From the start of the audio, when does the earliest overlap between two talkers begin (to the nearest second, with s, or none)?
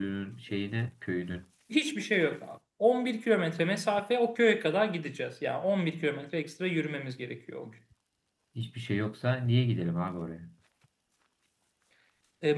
none